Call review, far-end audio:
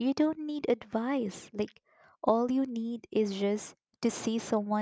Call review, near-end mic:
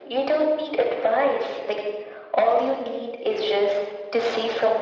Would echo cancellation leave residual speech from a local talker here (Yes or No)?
No